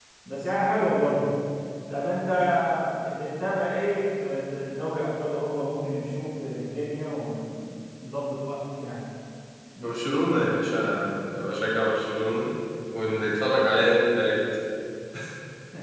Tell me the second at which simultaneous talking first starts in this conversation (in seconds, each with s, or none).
none